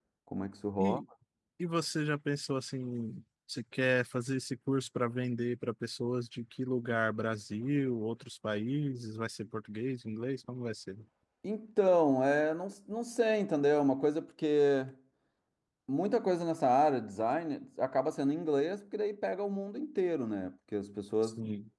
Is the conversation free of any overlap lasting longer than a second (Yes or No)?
Yes